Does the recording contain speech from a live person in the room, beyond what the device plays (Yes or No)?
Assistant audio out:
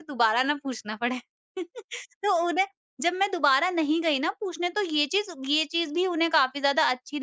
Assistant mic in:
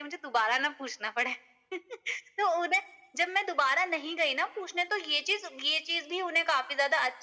No